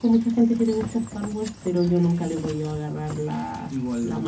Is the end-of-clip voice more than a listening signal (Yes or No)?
Yes